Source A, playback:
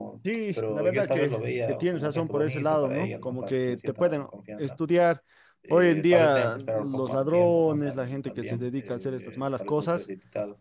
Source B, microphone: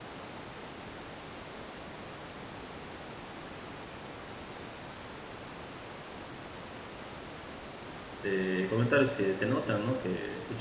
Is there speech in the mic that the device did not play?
Yes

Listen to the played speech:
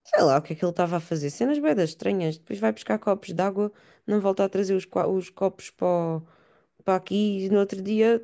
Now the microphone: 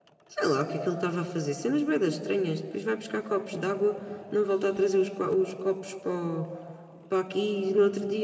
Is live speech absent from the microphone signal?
Yes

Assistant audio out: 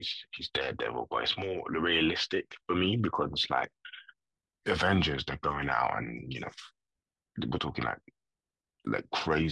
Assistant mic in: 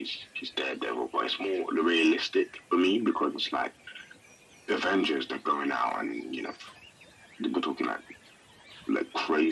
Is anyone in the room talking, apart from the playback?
No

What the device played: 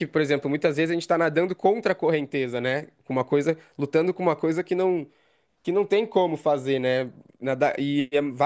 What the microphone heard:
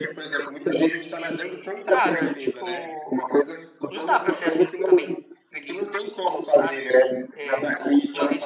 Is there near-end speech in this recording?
Yes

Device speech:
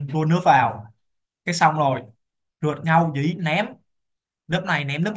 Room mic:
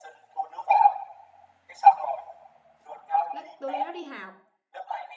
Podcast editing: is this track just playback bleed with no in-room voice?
No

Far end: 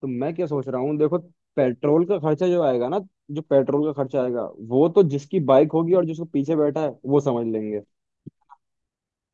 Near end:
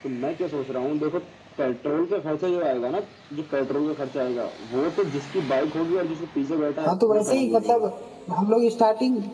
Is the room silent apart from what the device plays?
No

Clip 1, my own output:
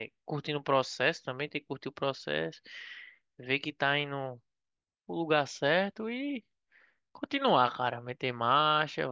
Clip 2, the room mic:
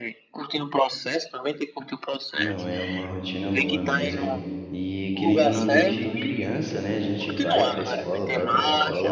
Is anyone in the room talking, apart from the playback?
Yes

